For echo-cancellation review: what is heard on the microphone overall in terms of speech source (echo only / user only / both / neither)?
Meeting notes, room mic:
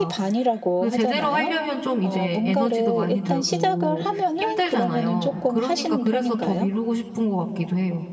both